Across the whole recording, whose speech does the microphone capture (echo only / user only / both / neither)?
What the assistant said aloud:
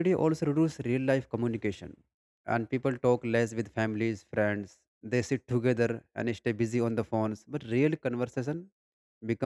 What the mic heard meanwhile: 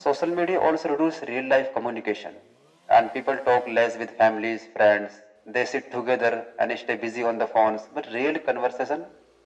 echo only